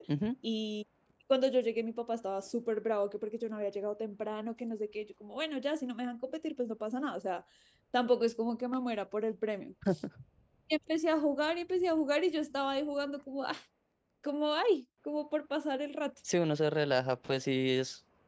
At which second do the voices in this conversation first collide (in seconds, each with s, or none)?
none